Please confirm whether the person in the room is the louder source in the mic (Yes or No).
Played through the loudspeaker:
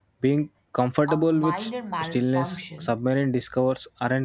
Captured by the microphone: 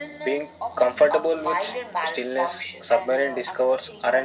No